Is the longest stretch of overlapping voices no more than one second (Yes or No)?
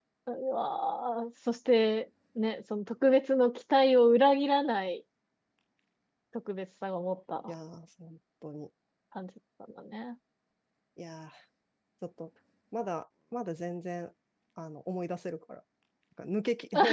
Yes